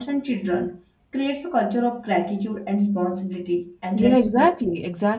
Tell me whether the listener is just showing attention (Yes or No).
No